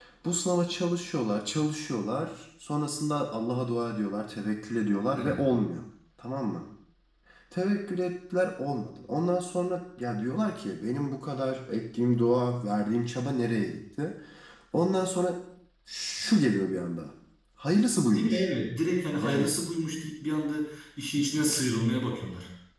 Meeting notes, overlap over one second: none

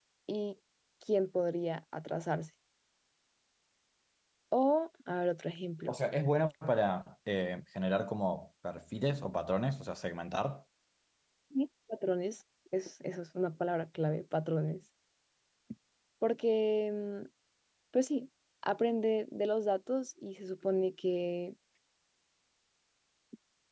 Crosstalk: none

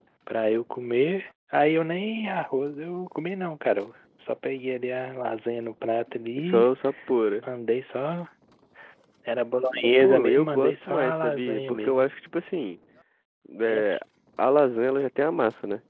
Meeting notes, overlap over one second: present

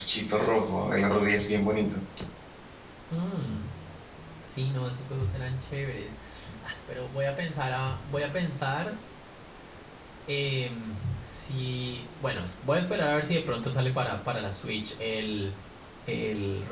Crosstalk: none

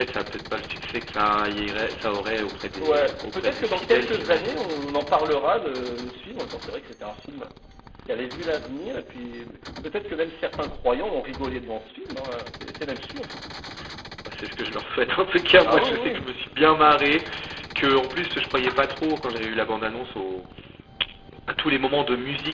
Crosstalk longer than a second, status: present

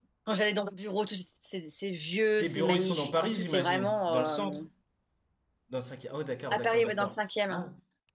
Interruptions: present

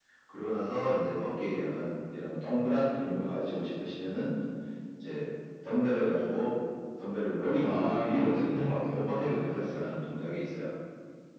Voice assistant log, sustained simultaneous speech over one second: present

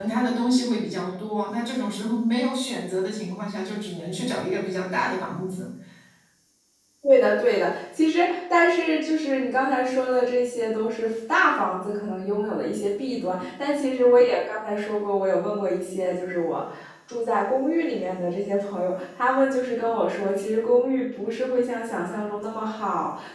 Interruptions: none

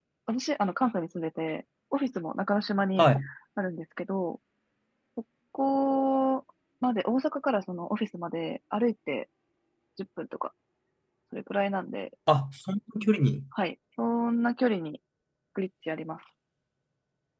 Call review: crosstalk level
none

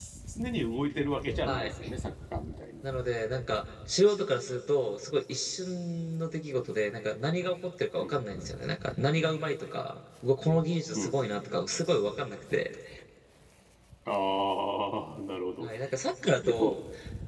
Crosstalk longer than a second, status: none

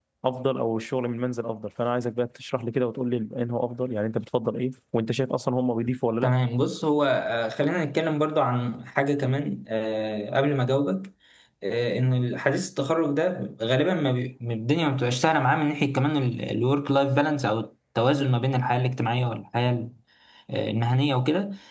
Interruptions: none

